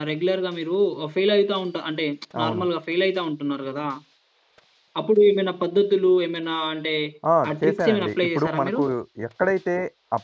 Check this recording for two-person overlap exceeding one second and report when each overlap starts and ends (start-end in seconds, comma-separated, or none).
7.5-8.8